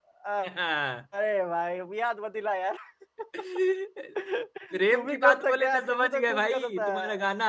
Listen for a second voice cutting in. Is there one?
Yes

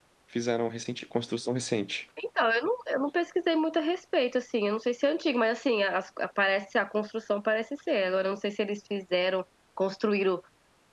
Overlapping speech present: No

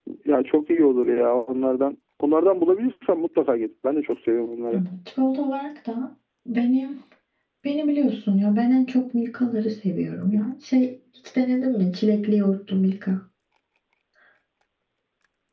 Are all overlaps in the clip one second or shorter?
Yes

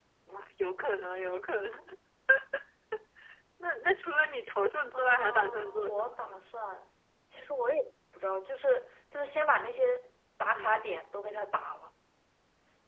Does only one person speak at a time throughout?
No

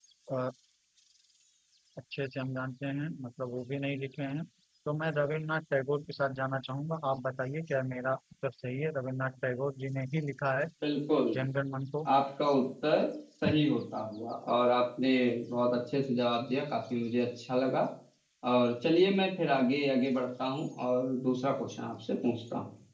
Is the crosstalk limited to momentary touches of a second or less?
Yes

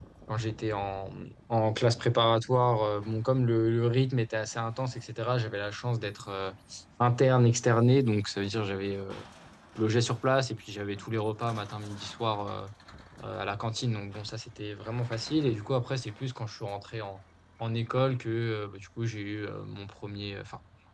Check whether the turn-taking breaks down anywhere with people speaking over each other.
No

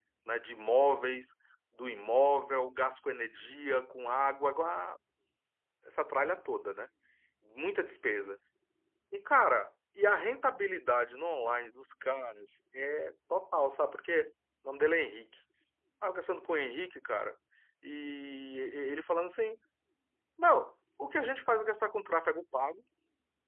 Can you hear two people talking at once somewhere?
No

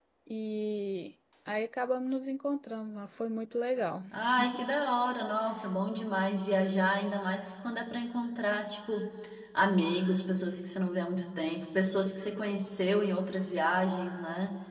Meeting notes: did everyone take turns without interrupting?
Yes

